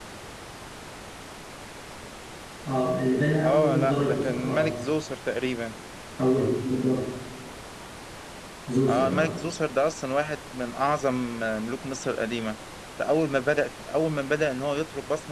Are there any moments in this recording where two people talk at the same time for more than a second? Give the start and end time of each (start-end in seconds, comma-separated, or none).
3.4-4.7